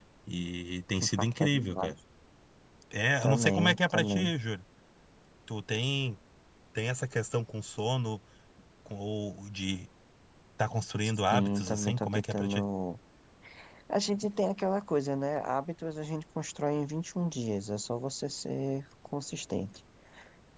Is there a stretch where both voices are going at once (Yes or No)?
Yes